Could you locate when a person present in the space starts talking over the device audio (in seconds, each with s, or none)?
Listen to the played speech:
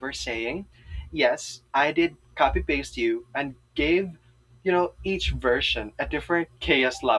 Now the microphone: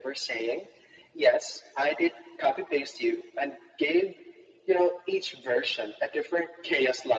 none